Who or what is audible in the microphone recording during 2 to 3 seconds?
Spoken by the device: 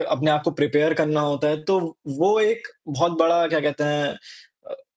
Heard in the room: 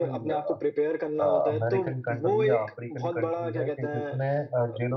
both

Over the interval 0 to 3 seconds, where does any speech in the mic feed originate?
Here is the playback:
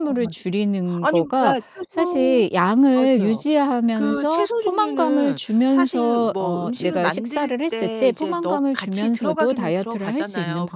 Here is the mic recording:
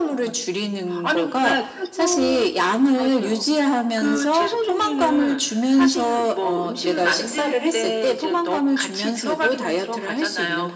echo only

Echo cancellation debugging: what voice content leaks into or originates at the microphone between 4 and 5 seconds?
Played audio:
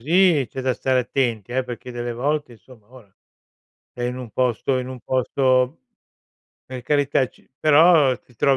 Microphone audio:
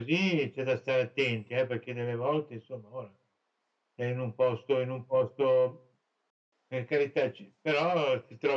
echo only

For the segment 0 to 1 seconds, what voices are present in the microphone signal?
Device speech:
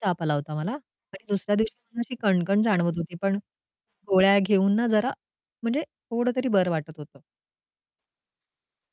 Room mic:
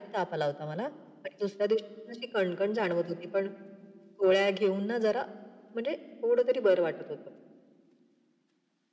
echo only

